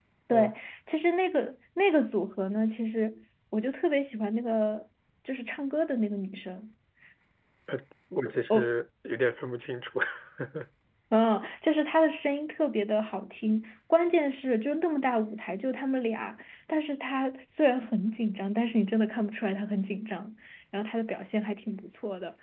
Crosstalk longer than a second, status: none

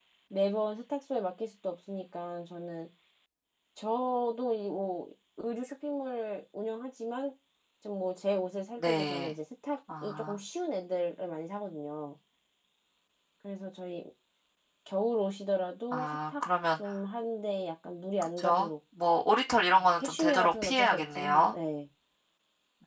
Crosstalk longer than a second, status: present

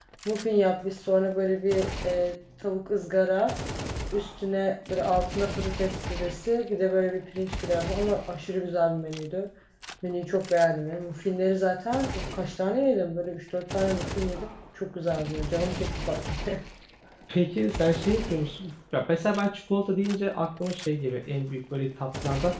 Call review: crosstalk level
none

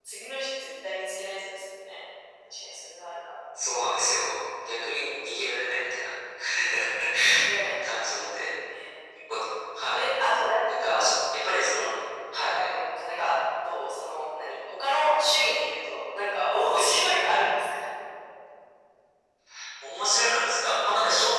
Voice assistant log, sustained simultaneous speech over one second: none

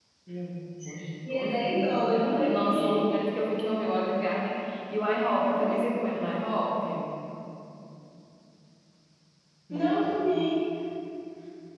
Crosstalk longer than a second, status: present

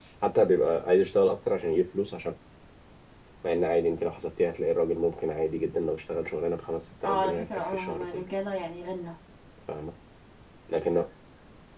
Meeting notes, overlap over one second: present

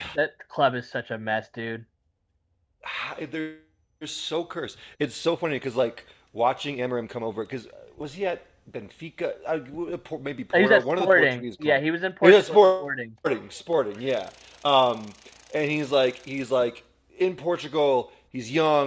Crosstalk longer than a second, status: present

